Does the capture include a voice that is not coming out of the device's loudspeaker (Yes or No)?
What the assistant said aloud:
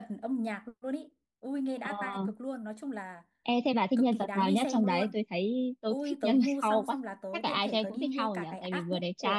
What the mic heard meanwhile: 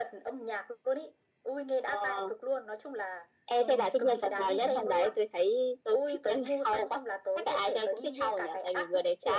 Yes